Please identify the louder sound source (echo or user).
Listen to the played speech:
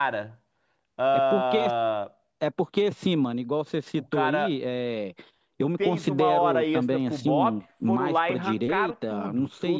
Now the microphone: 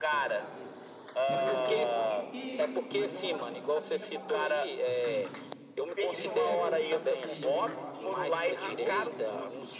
echo